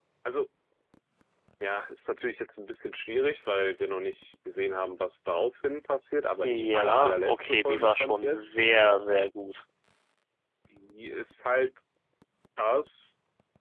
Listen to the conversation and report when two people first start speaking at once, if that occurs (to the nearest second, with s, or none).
6 s